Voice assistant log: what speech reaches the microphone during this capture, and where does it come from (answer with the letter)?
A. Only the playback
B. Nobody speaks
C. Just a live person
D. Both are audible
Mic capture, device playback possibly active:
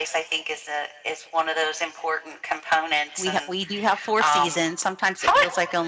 D